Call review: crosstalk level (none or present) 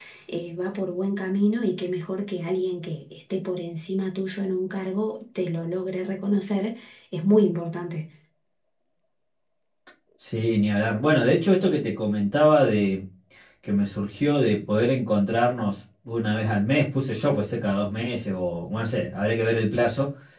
none